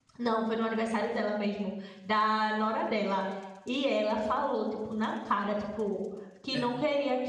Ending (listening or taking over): listening